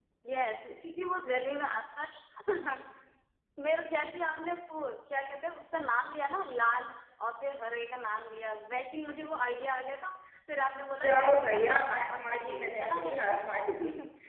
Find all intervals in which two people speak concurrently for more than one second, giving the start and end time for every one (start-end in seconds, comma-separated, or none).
11.0-13.3